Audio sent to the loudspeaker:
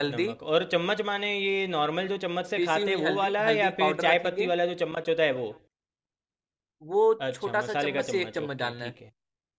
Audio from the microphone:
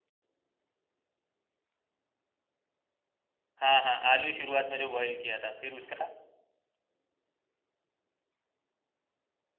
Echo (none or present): none